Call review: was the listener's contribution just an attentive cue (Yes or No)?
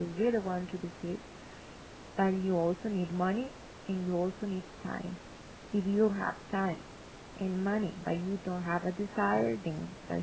Yes